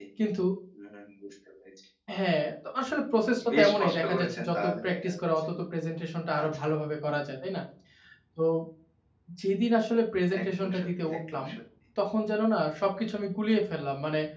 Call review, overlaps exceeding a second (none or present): present